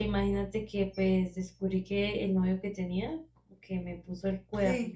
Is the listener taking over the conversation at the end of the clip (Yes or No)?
No